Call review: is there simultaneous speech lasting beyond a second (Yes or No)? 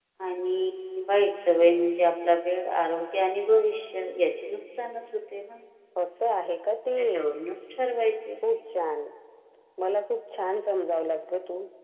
No